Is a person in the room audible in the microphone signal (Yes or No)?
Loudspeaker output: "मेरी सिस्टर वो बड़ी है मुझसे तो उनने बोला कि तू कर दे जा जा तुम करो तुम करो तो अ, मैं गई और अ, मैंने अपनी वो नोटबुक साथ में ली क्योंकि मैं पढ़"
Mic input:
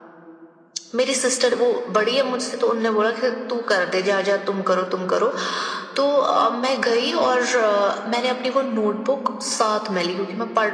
No